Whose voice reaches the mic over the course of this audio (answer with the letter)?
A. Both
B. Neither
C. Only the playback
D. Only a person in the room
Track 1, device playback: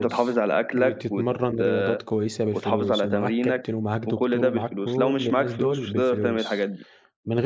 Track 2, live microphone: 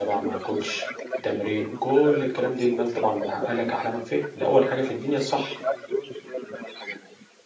A